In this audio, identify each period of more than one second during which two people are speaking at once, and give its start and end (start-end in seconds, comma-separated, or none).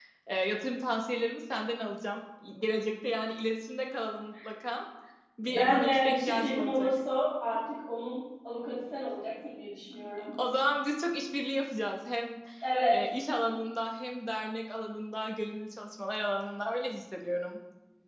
5.4-6.9